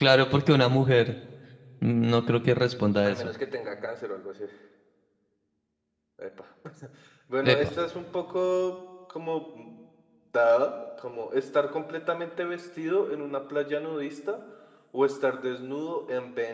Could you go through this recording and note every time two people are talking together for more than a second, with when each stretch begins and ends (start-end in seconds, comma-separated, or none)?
none